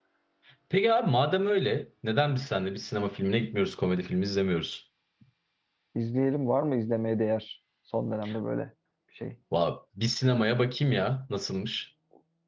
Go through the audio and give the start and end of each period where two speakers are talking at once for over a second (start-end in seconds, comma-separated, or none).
none